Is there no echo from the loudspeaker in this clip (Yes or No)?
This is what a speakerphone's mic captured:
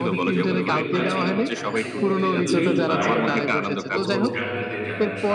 No